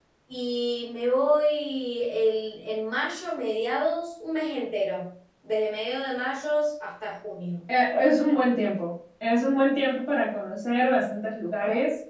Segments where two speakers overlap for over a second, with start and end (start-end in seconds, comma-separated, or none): none